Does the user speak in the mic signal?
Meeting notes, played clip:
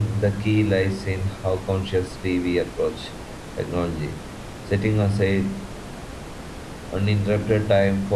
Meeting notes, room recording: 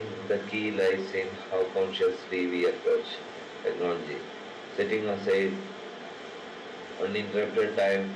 No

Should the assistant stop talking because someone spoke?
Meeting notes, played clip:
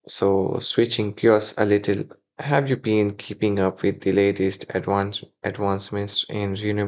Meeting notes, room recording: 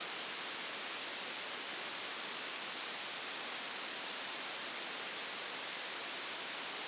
No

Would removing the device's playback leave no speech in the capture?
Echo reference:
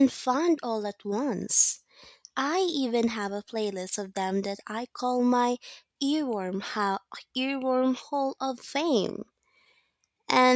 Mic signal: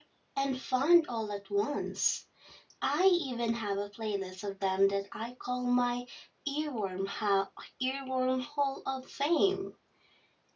Yes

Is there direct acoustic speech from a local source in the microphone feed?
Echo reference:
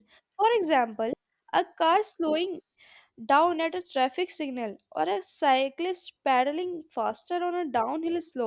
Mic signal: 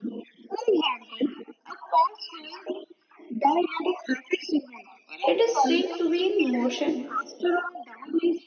Yes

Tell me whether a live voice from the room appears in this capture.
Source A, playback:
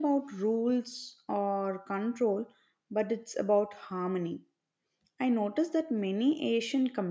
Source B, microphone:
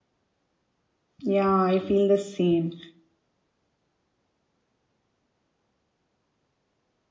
Yes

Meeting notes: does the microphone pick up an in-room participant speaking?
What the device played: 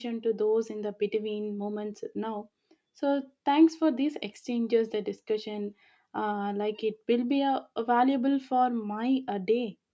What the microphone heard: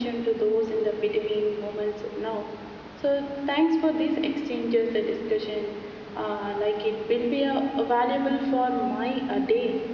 No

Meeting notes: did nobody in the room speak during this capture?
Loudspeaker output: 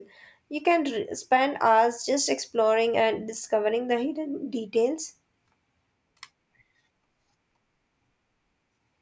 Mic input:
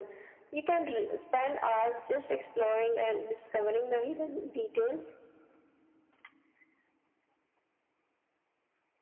Yes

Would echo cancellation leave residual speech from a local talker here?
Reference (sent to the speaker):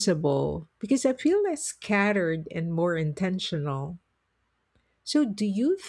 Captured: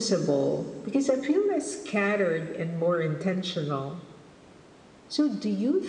No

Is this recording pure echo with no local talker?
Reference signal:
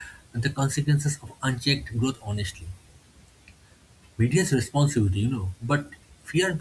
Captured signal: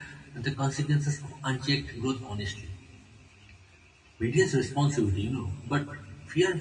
Yes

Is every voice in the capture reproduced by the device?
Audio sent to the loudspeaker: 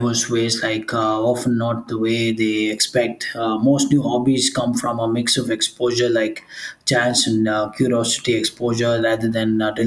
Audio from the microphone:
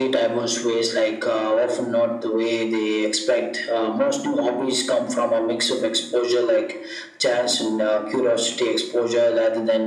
Yes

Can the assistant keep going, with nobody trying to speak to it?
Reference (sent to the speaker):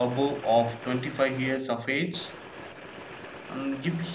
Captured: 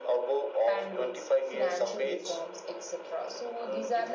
No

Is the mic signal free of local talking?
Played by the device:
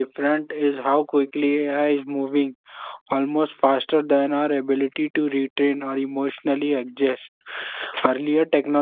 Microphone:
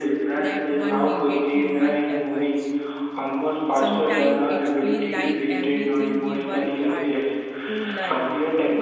No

